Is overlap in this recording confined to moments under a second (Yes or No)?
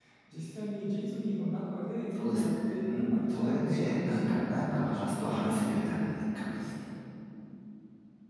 No